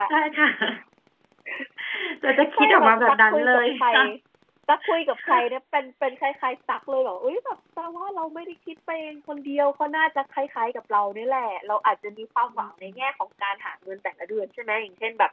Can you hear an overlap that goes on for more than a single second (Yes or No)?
Yes